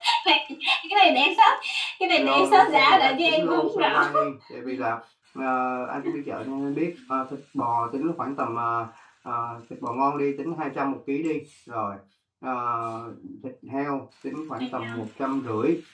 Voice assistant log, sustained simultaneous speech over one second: present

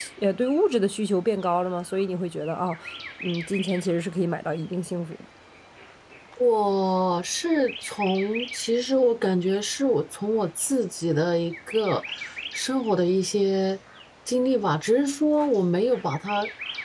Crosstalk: none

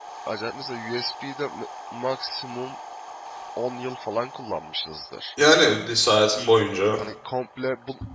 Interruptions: none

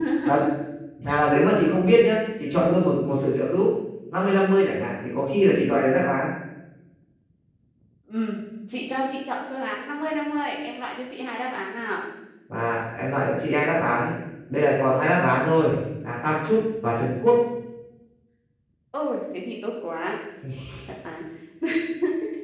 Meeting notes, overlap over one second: none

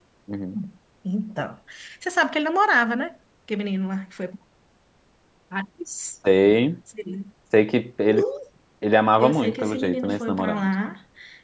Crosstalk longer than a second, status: present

